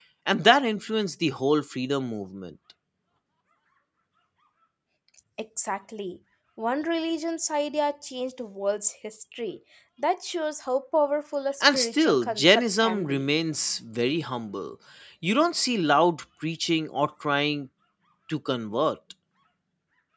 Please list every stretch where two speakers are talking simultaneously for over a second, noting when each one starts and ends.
11.6-13.2

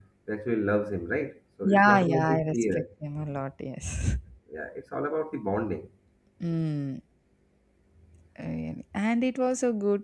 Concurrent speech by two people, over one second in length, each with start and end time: 1.6-2.8

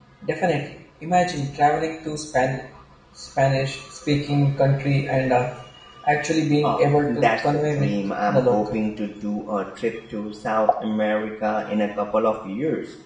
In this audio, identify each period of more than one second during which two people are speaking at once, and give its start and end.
6.6-7.9

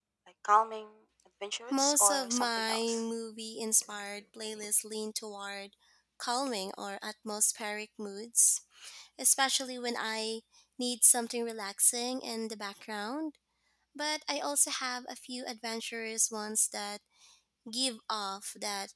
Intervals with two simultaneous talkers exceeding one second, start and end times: 1.7-3.0

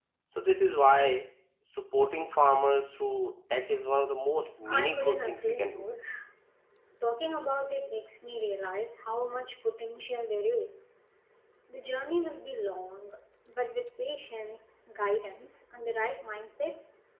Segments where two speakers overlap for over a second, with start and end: 4.7-5.9

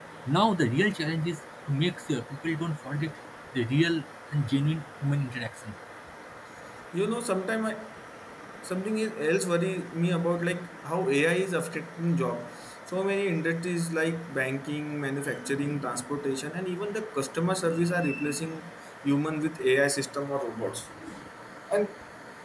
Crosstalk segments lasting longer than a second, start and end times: none

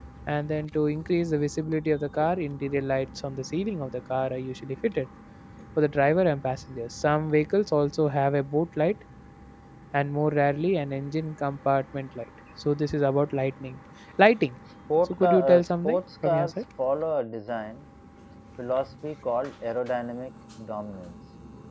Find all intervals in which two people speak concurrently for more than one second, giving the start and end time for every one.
15.0-16.5

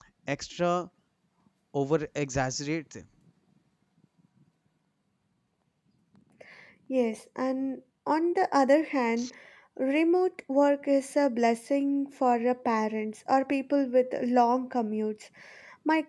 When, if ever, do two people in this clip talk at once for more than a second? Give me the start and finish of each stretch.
none

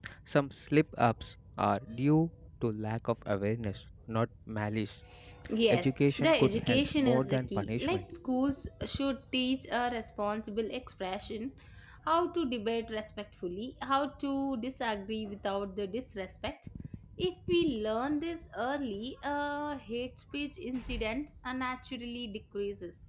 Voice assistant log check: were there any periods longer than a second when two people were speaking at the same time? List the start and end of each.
5.7-8.0

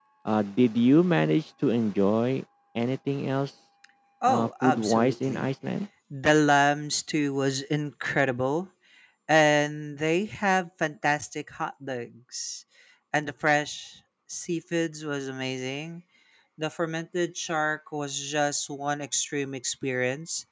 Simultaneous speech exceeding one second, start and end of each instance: 4.3-5.5

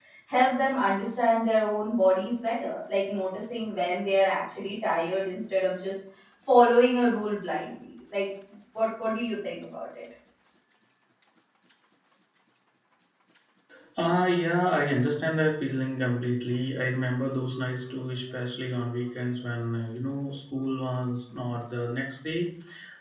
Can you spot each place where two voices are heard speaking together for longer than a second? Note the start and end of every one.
none

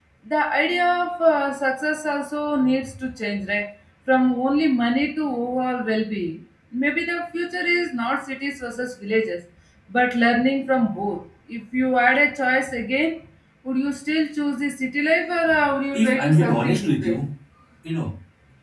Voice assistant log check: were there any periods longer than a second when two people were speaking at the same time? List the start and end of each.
15.9-17.2

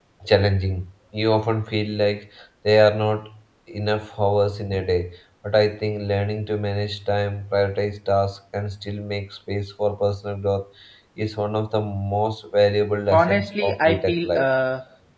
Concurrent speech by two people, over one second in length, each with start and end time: 13.1-14.5

